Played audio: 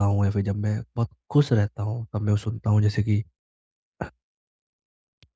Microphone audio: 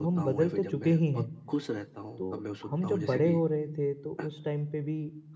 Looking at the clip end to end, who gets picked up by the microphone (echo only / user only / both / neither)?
both